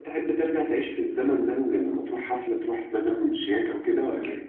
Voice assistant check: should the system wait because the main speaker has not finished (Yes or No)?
No